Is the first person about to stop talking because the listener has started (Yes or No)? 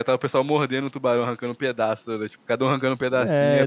Yes